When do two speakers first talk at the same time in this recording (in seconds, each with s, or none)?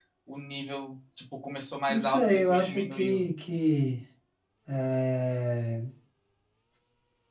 1.9 s